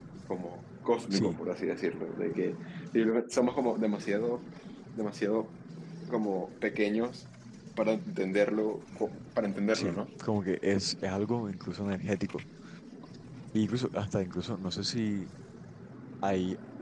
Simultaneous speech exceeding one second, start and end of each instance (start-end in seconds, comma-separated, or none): none